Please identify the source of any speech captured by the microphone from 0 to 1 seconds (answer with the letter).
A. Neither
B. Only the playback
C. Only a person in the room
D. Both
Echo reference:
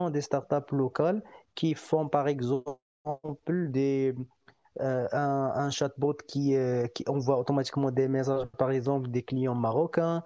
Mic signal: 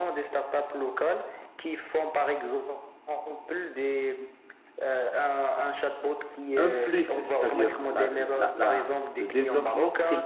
B